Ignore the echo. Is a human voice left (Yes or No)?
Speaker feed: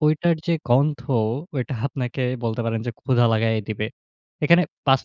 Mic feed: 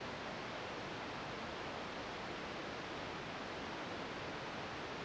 No